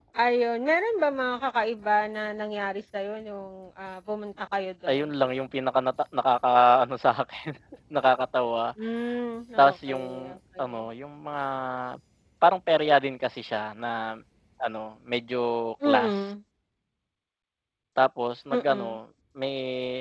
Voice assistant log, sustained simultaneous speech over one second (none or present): present